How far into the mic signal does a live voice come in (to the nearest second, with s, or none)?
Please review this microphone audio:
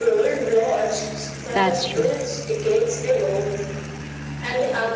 2 s